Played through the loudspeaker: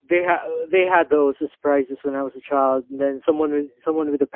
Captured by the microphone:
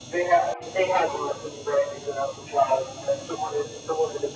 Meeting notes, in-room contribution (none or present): none